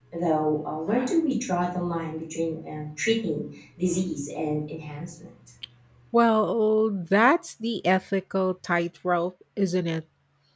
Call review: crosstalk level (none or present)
none